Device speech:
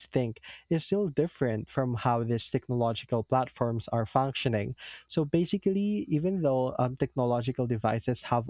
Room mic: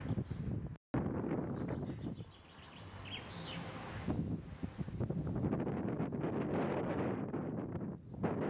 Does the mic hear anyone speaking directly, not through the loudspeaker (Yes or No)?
No